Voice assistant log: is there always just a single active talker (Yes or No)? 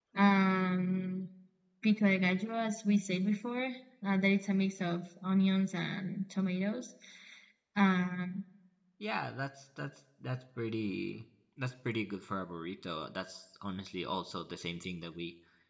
Yes